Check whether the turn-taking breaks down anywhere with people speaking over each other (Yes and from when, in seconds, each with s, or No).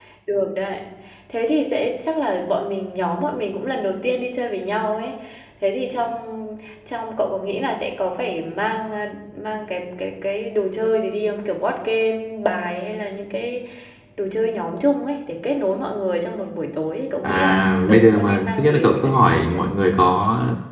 Yes, from 17.2 s